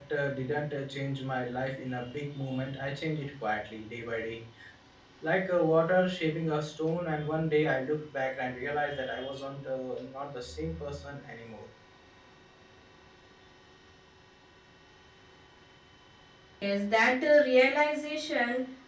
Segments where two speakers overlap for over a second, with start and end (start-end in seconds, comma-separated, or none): none